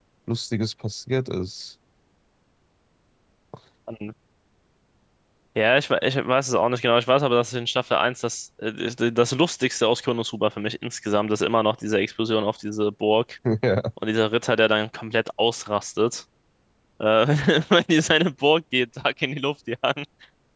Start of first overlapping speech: none

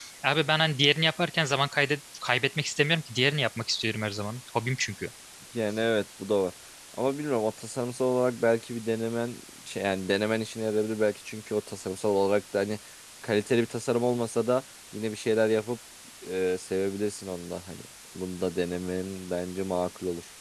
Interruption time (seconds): none

